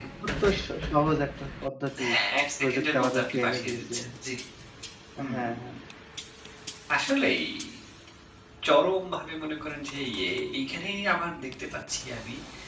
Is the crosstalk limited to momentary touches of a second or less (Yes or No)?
No